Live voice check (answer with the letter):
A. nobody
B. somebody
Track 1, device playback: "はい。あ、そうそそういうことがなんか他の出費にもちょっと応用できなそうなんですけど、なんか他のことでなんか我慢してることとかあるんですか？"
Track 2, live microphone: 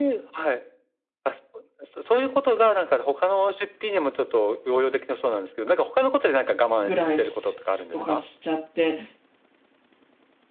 B